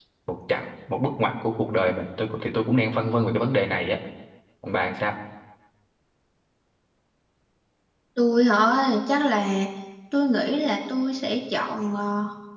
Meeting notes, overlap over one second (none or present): none